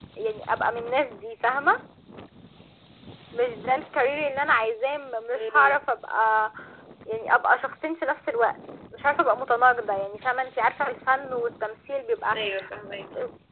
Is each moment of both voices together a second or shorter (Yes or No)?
Yes